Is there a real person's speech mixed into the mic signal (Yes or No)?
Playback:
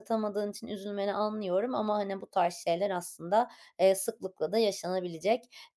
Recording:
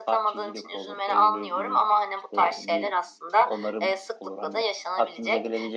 Yes